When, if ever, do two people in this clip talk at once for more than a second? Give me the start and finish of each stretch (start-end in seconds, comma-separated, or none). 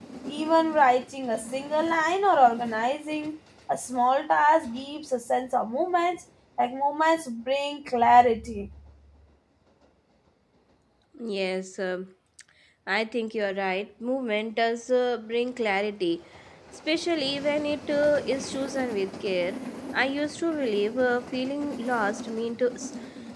none